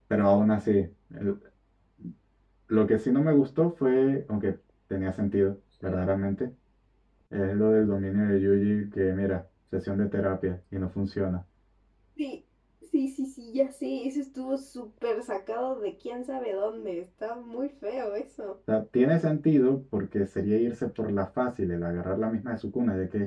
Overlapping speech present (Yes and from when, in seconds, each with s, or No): No